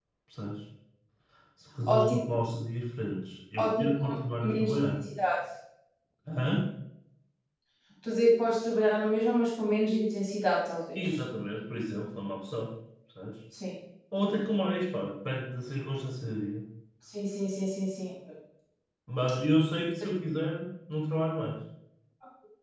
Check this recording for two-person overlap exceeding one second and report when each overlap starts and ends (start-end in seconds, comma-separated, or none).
3.6-4.8